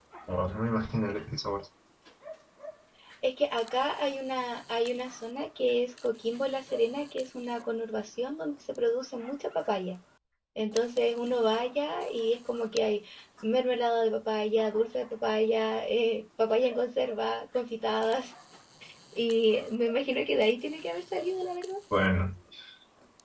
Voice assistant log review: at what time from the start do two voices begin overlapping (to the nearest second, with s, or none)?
none